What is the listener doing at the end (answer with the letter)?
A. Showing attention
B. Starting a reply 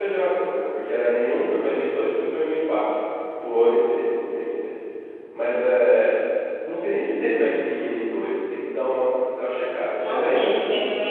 B